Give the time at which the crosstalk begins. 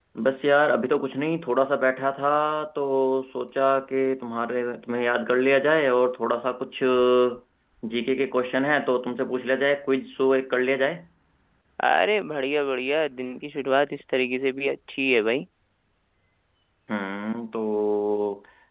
none

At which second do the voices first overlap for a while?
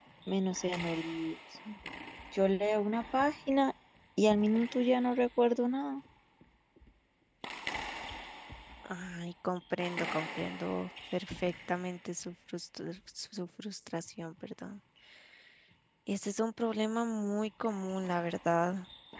none

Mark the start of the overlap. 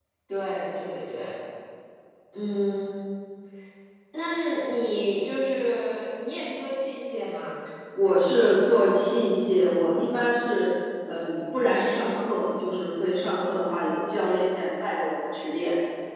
none

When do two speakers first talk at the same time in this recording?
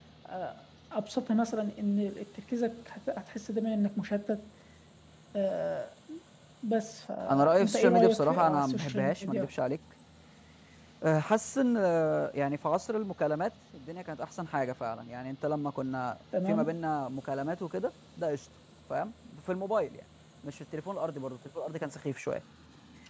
7.3 s

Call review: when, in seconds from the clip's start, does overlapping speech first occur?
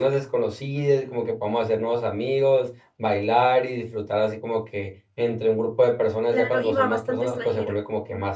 6.3 s

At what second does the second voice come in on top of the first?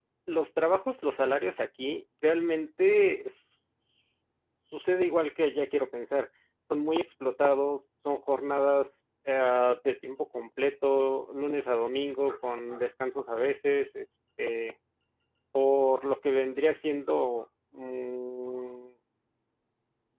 none

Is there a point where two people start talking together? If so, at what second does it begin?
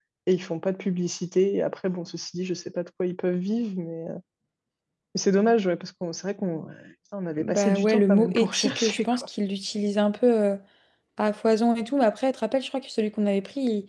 7.4 s

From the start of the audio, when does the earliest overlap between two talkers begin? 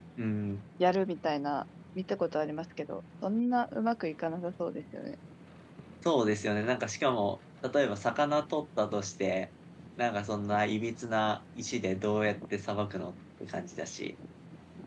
none

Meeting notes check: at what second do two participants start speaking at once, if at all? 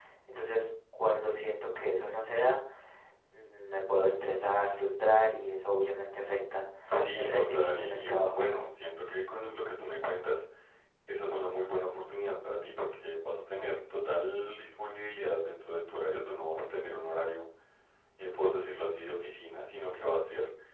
7.1 s

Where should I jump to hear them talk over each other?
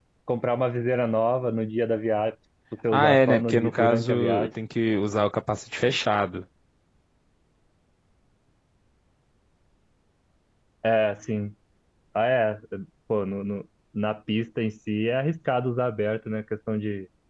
2.9 s

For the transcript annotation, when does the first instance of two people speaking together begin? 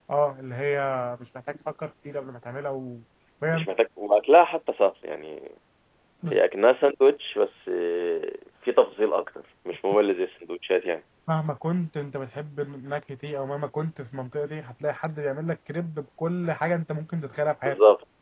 none

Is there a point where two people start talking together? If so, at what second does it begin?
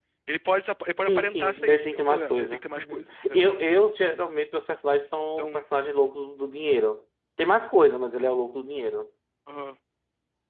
1.0 s

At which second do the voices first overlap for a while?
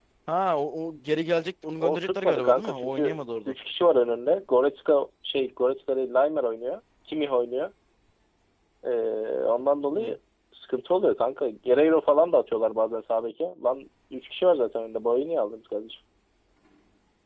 1.8 s

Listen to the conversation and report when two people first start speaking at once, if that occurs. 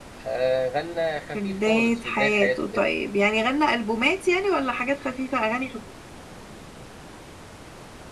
1.3 s

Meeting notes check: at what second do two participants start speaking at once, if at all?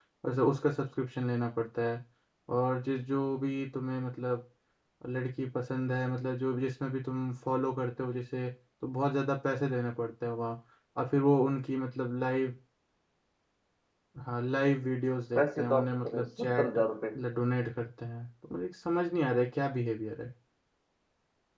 15.3 s

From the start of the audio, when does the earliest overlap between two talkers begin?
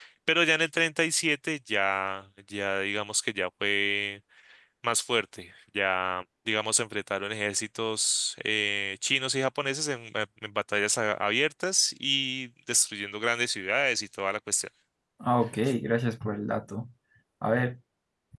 none

